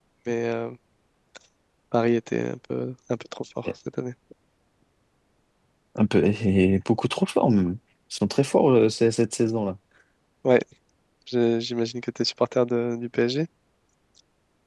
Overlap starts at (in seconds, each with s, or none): none